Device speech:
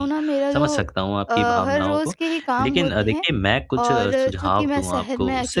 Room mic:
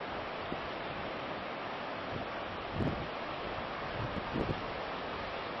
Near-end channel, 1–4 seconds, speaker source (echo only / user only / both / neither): neither